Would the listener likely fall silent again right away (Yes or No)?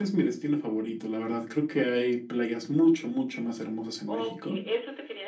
No